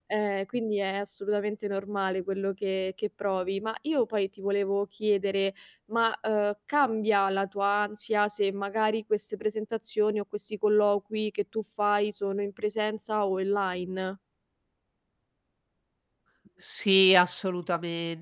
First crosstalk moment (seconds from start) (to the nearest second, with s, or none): none